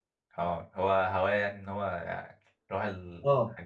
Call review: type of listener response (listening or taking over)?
taking over